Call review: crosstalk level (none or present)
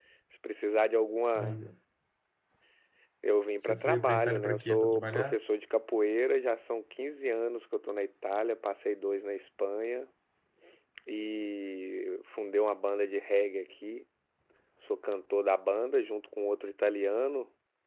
present